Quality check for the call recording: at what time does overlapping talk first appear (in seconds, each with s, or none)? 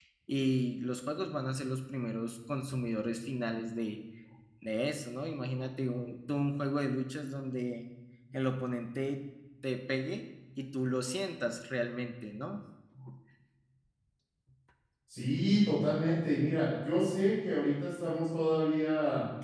none